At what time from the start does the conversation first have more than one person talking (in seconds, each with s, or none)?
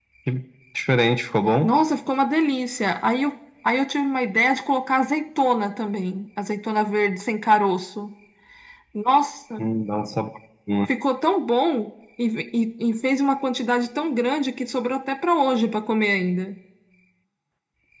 none